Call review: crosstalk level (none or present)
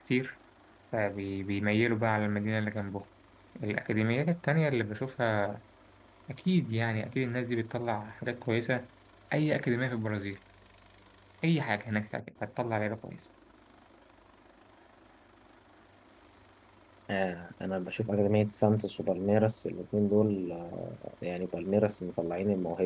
none